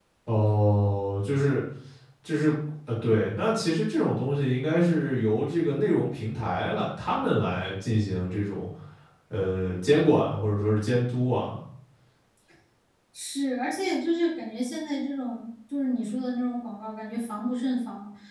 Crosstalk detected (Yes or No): No